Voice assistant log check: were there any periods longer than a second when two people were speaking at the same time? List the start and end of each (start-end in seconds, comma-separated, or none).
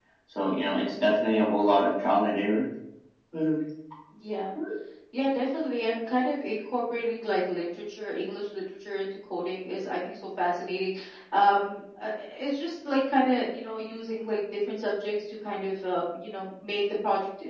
none